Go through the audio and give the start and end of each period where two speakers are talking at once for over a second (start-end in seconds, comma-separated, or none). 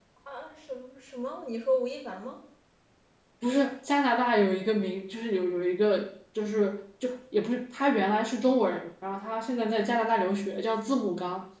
none